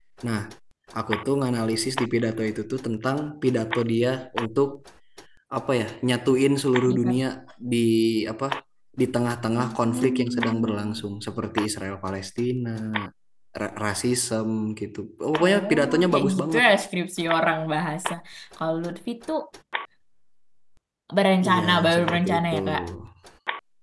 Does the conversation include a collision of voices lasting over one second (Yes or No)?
Yes